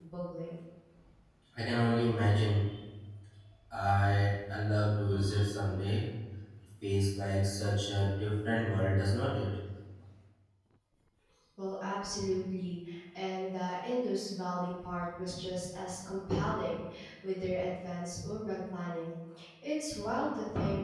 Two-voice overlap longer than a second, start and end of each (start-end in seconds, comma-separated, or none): none